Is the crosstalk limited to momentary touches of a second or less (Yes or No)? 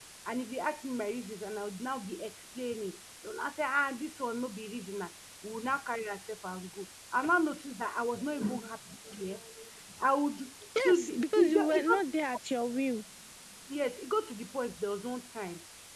No